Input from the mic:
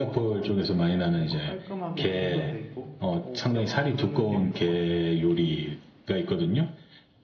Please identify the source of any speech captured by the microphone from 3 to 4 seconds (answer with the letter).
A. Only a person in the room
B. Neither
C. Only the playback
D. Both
D